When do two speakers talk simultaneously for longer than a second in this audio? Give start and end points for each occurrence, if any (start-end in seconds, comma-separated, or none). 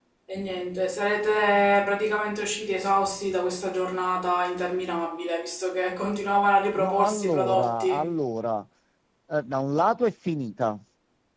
6.8-8.0